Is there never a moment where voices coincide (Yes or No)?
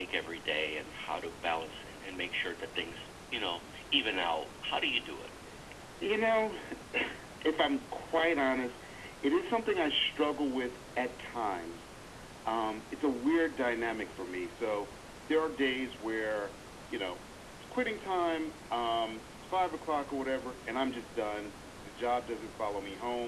Yes